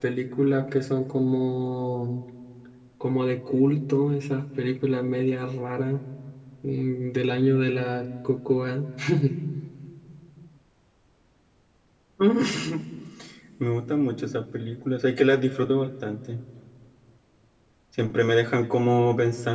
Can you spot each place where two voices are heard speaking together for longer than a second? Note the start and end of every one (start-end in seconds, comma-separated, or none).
none